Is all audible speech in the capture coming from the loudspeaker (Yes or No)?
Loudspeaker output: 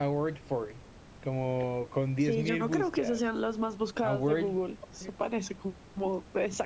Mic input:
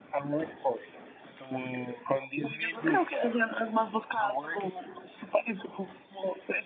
Yes